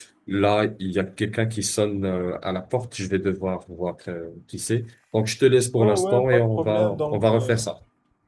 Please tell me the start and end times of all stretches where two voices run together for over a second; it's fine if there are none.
5.8-7.6

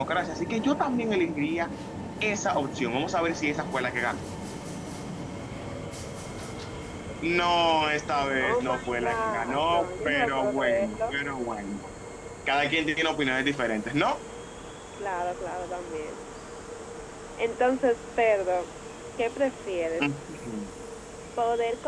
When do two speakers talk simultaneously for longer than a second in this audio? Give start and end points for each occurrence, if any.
8.4-11.1

